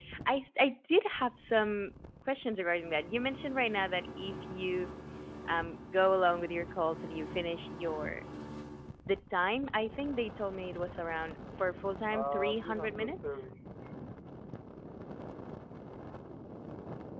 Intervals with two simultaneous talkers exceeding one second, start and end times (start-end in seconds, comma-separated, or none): 12.1-13.4